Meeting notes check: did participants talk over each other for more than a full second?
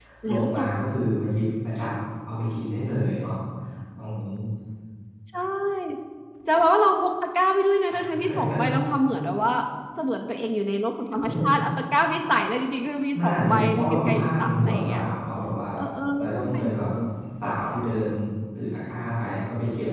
Yes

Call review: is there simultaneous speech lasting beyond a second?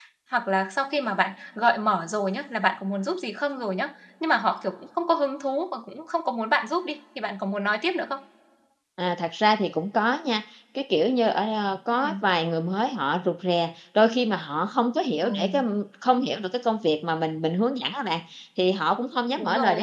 No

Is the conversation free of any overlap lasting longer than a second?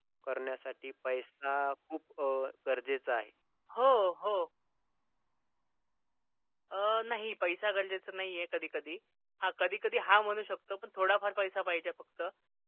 Yes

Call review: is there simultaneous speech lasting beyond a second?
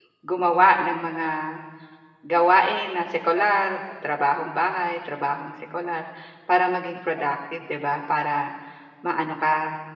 No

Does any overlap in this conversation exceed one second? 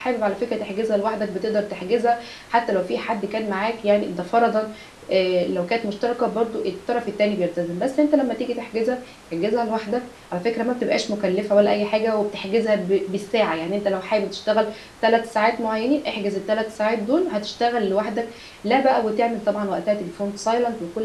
No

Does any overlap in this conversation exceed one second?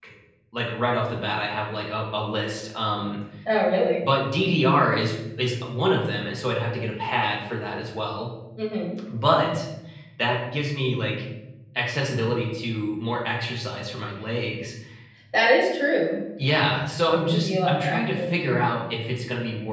Yes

